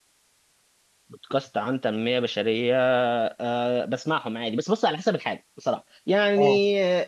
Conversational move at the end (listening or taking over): listening